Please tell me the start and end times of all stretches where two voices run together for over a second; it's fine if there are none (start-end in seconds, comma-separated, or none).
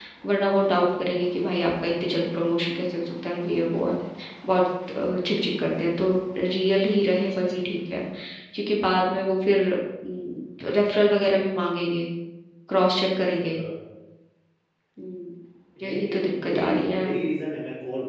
15.8-17.1